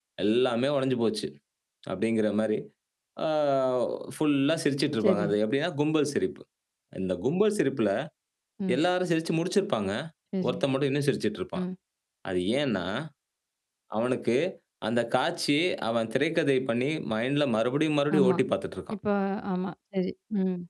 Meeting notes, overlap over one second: none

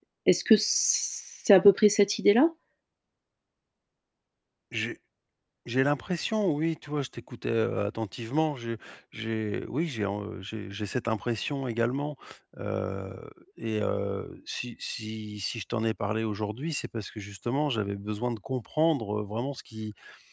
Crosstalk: none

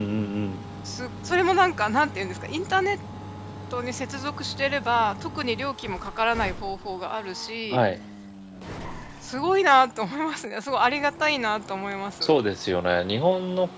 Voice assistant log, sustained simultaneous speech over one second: none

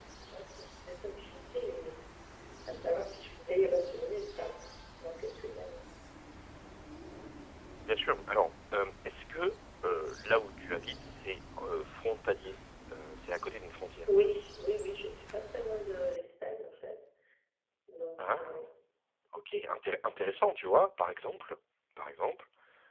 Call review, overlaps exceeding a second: none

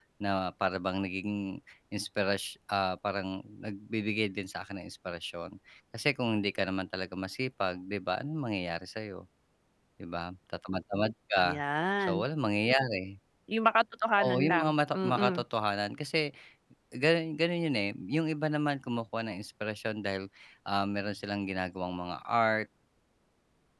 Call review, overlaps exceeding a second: present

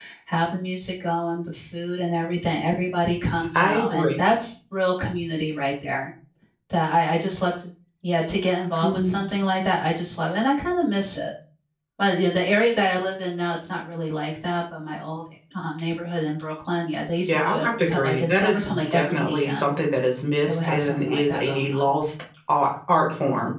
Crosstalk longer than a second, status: present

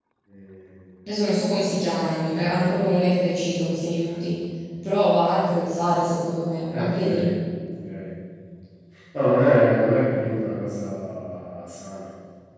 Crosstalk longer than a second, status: none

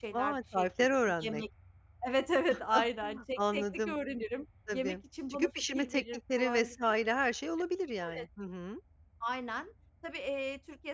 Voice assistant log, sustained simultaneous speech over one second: present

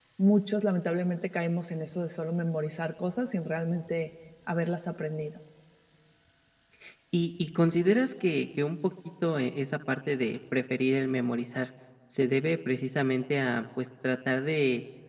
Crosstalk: none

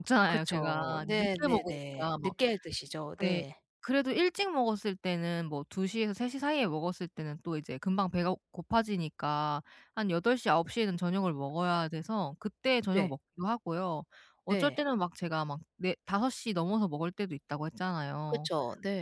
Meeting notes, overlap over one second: present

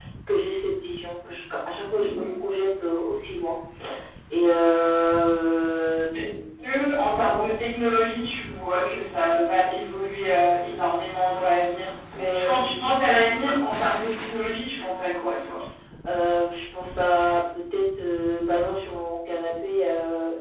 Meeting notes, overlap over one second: none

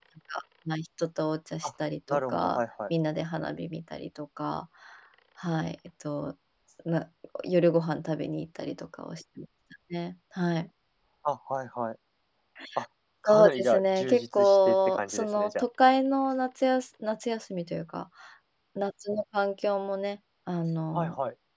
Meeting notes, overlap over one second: present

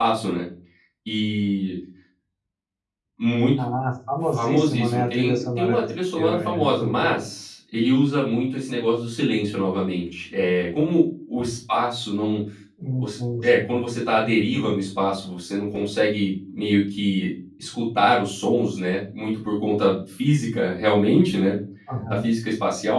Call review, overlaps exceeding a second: present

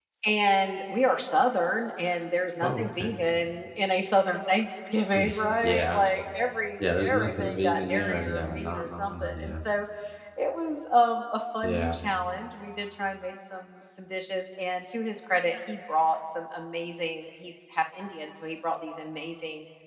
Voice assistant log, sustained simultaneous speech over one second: present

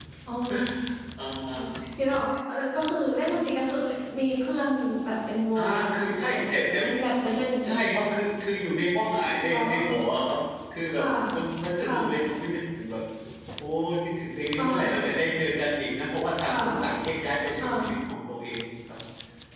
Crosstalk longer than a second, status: present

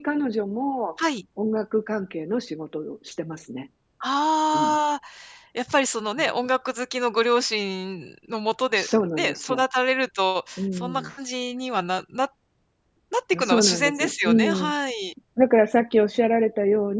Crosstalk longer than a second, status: present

